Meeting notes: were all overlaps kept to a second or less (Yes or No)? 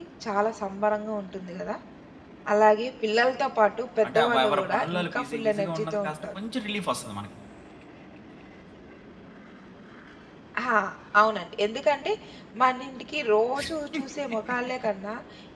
No